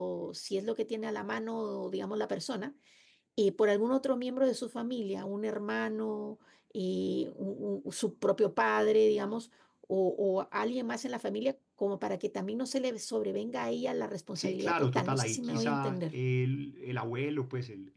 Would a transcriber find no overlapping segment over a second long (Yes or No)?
No